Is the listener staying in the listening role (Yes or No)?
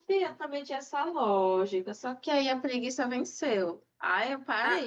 Yes